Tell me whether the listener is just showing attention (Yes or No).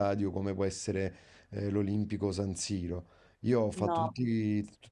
Yes